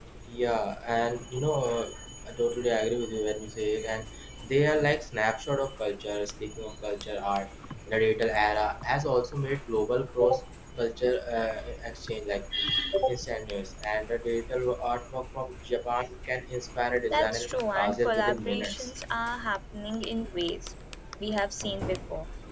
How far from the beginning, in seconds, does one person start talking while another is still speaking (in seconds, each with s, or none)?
17.1 s